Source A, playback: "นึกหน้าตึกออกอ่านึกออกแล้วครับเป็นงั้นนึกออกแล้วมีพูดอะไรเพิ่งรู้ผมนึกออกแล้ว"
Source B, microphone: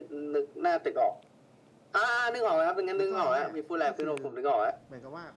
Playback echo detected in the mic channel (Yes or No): Yes